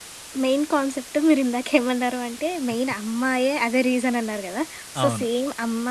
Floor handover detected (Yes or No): No